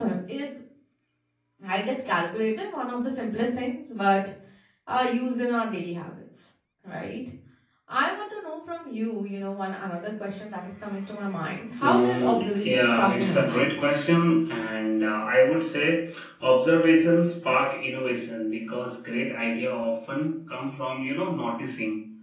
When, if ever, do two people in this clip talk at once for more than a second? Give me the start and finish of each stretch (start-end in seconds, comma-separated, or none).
11.8-13.7